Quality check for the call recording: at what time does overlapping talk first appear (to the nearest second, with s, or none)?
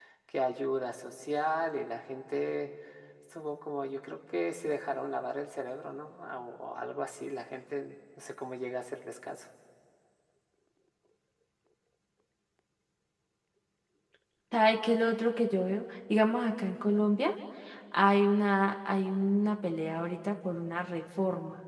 none